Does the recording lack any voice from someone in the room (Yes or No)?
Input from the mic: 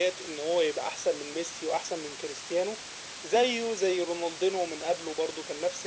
Yes